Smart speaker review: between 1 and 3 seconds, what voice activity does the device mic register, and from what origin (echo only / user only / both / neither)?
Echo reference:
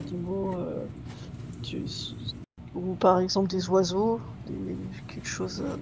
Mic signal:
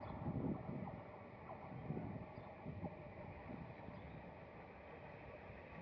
neither